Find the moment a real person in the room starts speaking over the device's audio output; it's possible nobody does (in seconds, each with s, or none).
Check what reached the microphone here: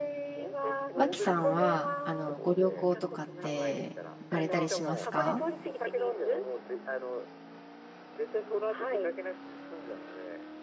0.9 s